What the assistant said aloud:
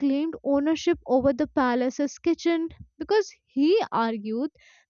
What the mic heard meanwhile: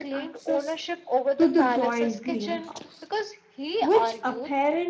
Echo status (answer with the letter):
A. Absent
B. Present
B